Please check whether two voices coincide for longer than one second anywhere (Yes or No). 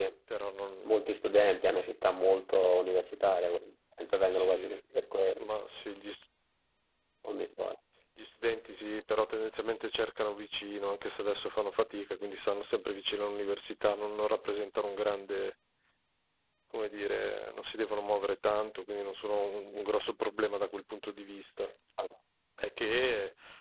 No